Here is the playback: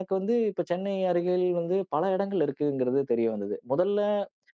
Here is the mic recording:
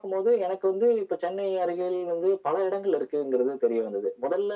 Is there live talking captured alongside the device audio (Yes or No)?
No